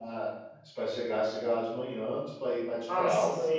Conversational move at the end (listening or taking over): listening